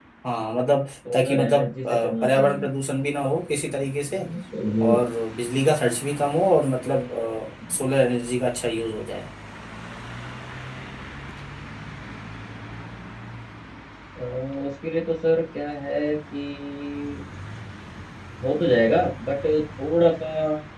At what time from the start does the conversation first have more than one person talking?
1.1 s

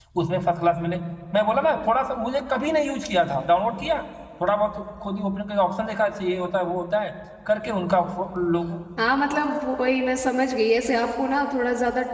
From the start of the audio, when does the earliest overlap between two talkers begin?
none

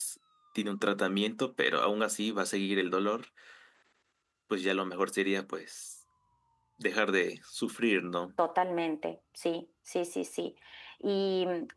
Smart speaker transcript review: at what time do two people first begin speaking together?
none

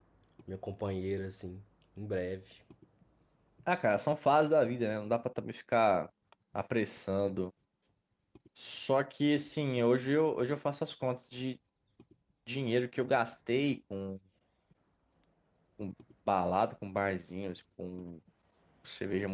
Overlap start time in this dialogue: none

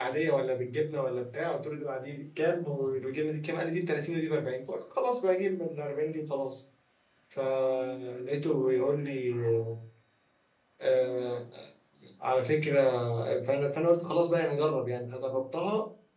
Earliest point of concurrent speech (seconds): none

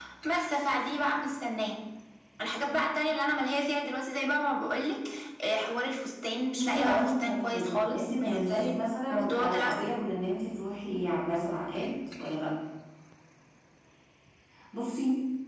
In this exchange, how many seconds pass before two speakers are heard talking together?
6.6 s

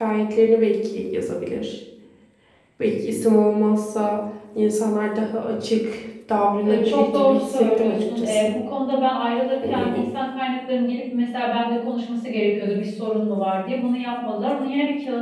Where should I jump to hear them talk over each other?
6.7 s

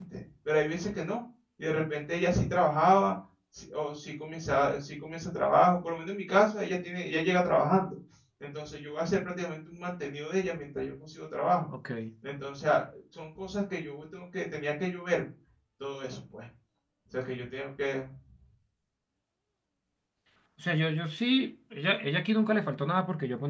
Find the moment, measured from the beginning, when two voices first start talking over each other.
none

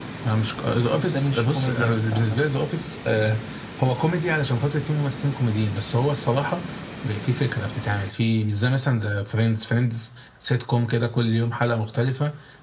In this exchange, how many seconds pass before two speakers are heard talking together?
0.8 s

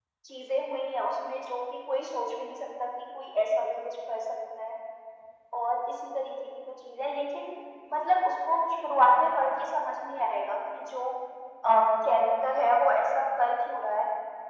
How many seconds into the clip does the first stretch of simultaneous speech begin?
none

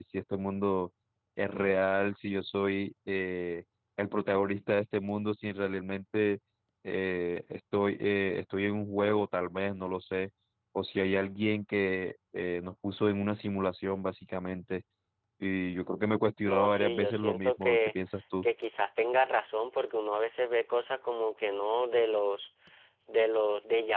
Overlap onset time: 16.4 s

